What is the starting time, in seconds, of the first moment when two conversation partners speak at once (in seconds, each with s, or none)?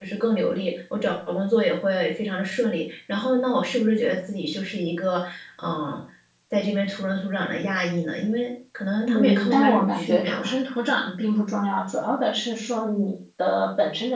9.1 s